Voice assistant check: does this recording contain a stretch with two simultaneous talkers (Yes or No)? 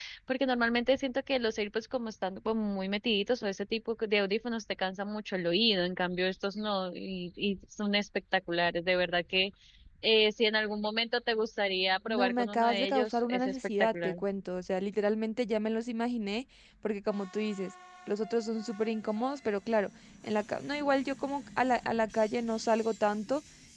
Yes